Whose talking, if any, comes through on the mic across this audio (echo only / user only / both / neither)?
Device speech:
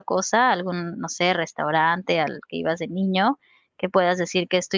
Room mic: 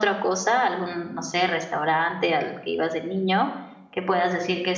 echo only